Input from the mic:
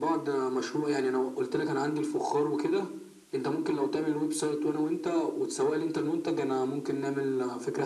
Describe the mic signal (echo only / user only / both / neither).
echo only